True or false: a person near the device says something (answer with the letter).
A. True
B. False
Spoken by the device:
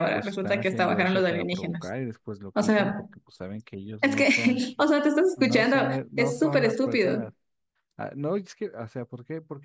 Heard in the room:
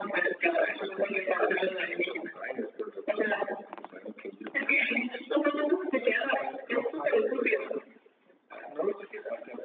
B